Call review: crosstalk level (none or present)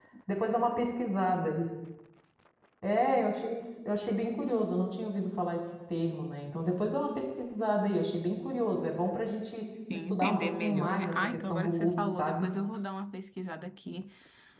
present